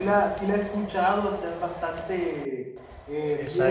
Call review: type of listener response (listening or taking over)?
taking over